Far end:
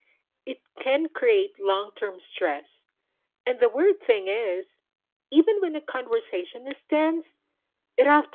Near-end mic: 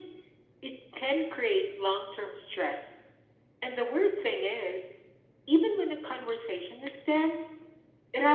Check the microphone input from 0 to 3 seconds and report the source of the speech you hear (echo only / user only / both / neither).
echo only